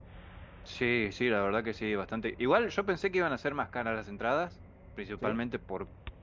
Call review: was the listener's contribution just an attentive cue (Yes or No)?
Yes